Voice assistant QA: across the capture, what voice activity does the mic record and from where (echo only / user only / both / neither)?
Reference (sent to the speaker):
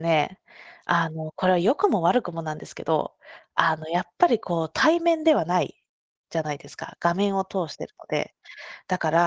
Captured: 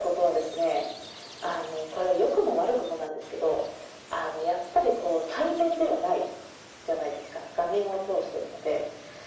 echo only